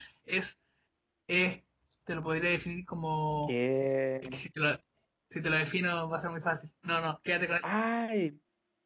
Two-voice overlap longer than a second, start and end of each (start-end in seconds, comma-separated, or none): none